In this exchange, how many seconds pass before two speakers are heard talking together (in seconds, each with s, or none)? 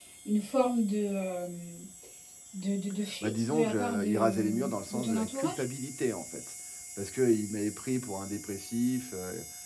3.2 s